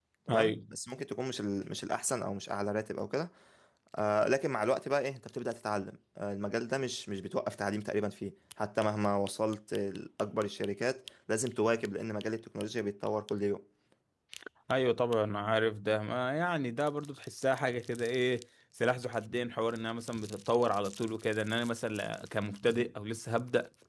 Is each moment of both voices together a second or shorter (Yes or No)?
Yes